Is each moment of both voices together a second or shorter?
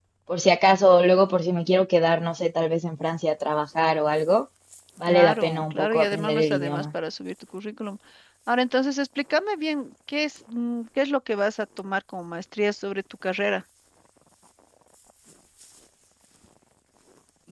No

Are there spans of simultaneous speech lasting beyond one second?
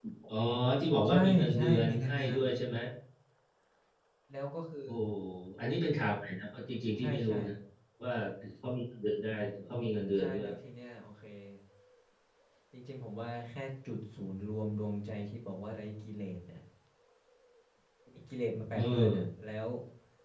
Yes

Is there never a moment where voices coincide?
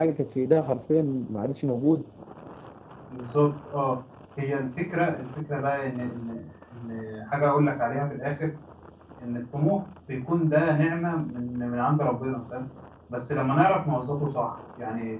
Yes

